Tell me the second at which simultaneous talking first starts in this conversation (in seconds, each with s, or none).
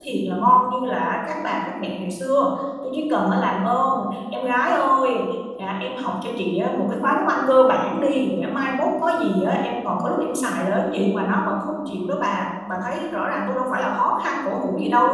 none